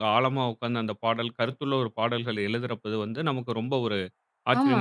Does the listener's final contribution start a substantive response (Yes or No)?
Yes